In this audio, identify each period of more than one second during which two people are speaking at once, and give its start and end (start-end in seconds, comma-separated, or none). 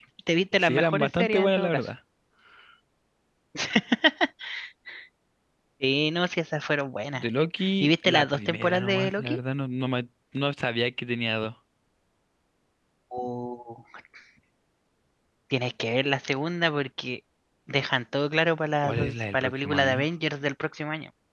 0.6-1.9, 7.8-9.4, 18.8-20.1